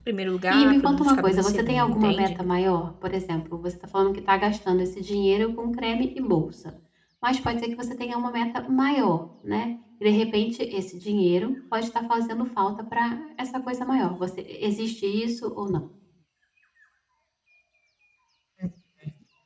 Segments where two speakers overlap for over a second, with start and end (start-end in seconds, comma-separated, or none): 0.5-2.3